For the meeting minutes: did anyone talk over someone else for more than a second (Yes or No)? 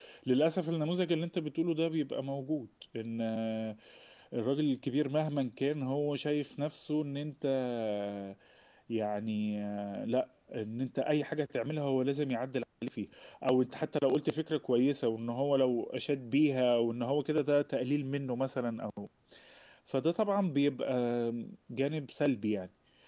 No